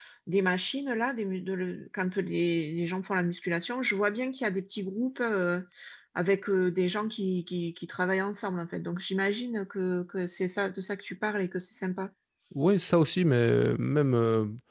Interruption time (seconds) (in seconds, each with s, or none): none